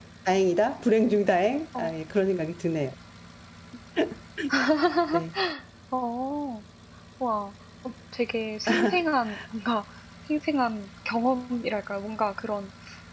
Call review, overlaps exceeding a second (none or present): none